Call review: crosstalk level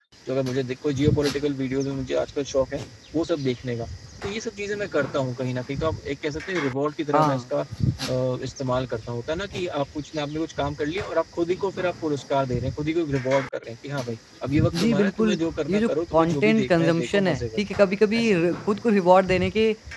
present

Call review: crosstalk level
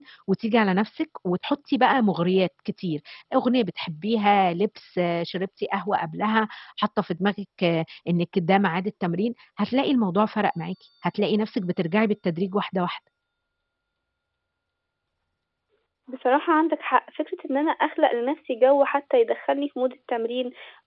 none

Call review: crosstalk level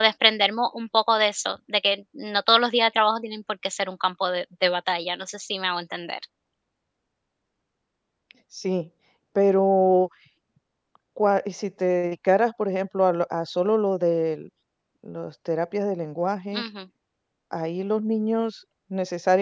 none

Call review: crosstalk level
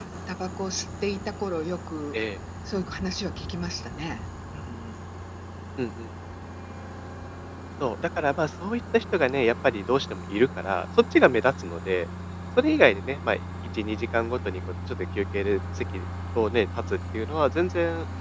none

